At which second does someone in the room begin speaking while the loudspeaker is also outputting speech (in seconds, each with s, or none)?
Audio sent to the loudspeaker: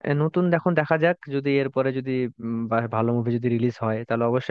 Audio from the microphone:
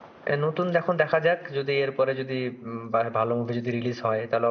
none